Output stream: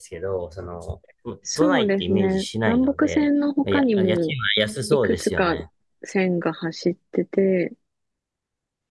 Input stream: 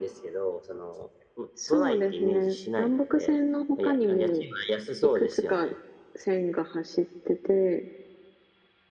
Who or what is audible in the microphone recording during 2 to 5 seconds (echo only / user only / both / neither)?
echo only